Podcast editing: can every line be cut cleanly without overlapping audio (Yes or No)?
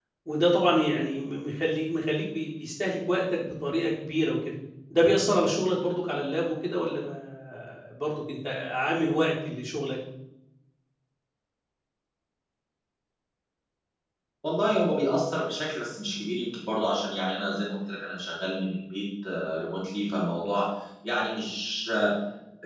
Yes